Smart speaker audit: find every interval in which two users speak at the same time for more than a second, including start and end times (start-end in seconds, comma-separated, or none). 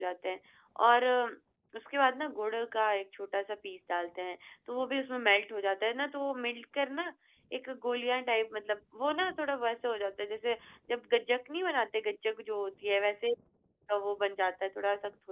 none